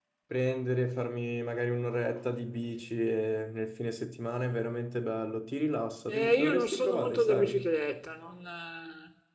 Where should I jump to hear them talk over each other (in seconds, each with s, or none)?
6.1 s